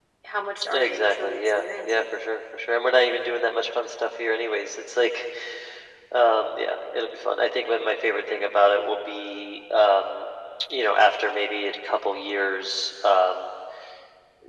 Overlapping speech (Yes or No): Yes